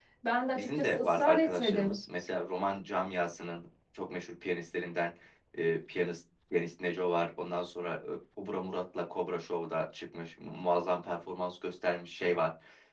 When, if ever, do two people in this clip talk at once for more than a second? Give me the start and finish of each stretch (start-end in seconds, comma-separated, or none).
0.6-2.0